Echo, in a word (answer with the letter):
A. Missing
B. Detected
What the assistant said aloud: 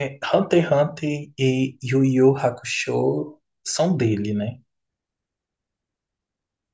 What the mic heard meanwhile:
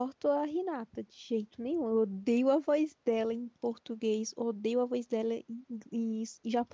A